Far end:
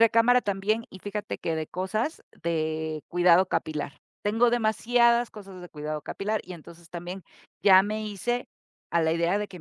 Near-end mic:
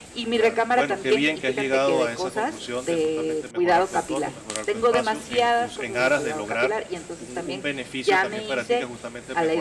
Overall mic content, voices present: both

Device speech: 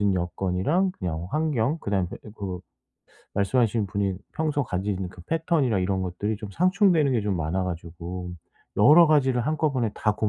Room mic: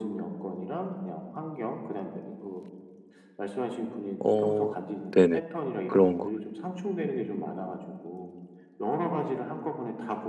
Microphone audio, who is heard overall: both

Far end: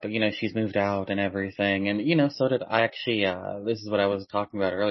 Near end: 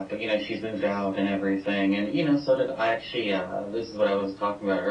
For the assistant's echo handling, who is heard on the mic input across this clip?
echo only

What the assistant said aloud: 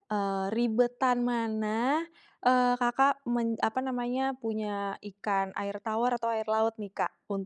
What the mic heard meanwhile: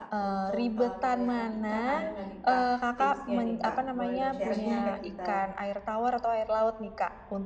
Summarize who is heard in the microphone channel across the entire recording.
both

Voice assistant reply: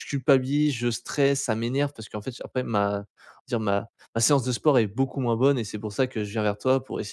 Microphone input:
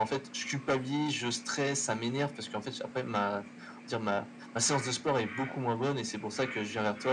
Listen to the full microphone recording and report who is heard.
echo only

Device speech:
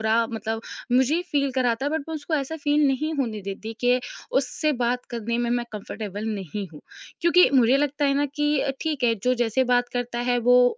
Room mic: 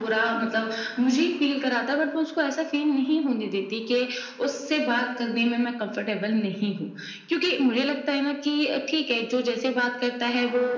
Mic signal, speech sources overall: echo only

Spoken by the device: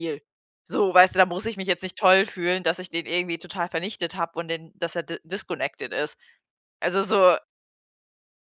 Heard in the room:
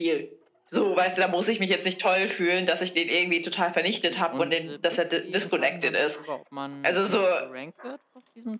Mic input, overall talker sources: both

